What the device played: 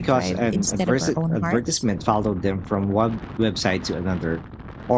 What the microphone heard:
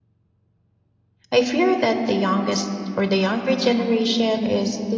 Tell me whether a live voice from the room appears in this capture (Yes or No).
Yes